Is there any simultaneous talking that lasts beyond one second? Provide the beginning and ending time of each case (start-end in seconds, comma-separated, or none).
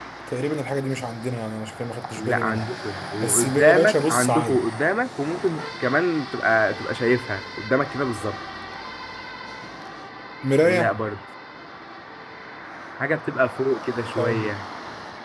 3.2-4.6